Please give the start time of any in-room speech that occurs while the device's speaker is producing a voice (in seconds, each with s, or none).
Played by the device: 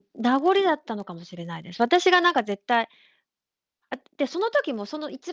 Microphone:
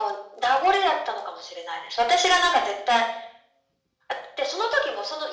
none